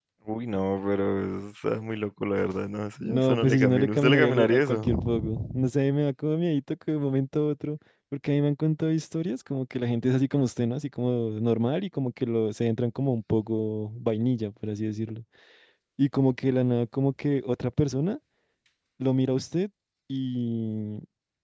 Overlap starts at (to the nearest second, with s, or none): 3 s